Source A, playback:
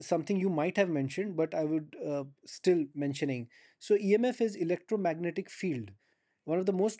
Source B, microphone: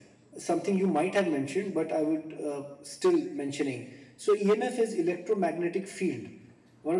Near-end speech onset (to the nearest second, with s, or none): none